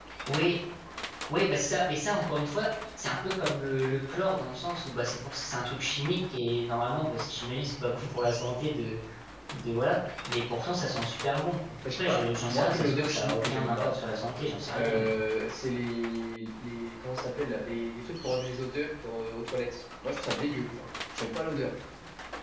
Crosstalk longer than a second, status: present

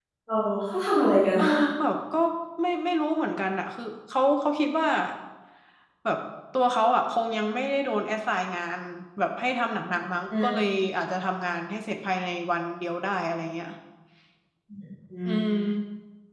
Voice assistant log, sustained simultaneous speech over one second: none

